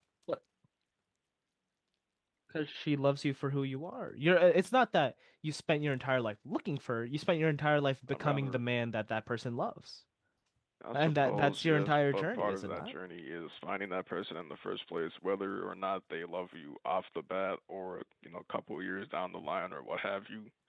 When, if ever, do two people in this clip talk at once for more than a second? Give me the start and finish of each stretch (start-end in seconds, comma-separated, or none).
10.9-12.9